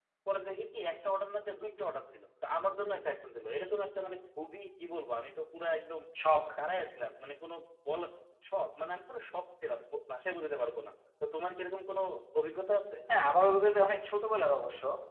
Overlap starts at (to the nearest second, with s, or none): none